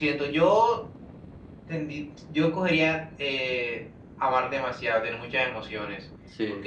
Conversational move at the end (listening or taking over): listening